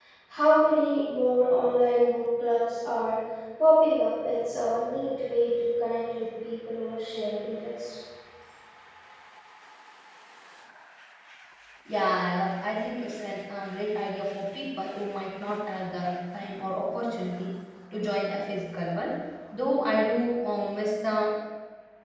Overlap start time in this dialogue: none

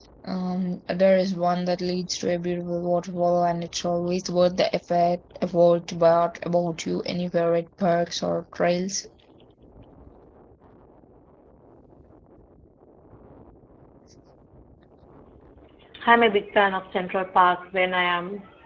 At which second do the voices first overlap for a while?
none

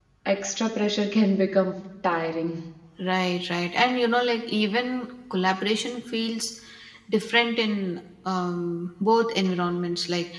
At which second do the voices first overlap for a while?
none

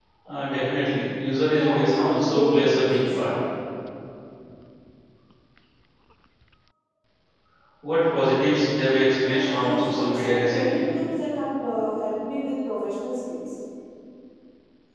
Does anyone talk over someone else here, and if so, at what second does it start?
1.4 s

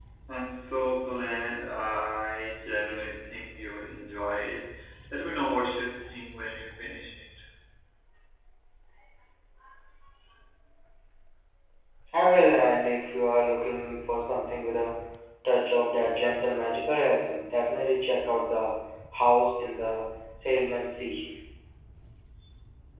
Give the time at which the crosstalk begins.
none

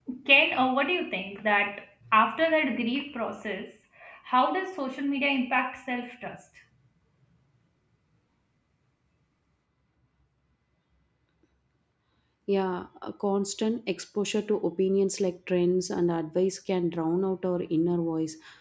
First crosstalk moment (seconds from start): none

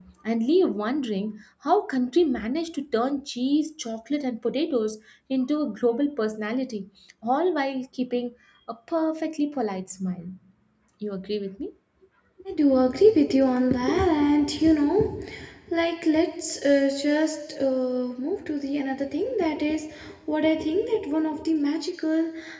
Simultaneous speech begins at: none

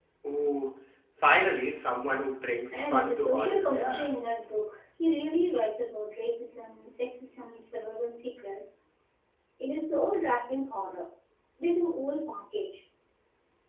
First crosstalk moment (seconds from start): 2.7 s

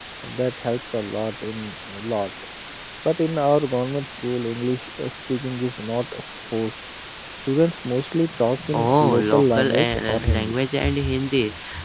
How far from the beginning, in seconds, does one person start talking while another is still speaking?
8.6 s

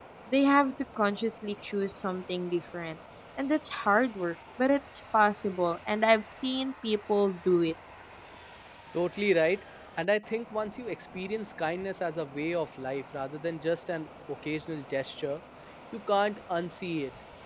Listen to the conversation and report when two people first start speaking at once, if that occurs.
none

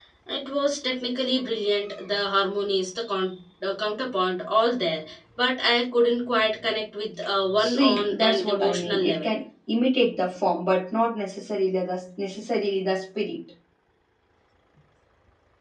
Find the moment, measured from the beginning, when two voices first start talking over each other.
7.6 s

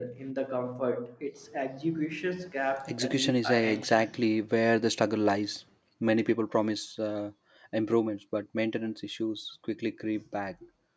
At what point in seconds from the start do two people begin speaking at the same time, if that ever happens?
2.8 s

